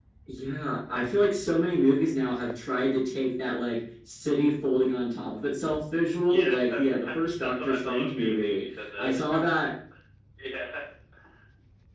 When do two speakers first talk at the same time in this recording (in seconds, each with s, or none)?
6.3 s